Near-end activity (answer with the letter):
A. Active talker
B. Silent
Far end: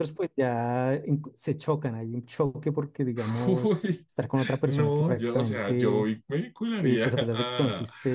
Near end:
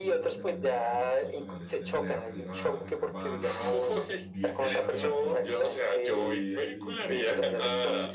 A